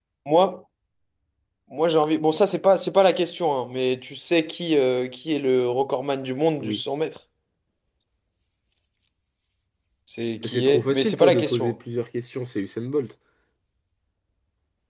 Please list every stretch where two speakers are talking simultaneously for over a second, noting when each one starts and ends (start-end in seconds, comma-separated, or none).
10.4-11.8